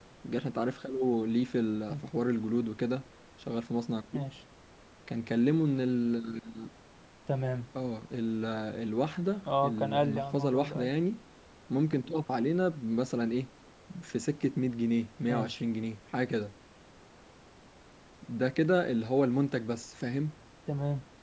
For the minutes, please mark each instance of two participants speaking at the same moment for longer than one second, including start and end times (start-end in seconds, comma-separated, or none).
9.6-10.9